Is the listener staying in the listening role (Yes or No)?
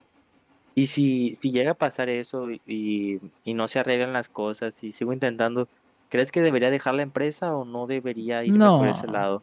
No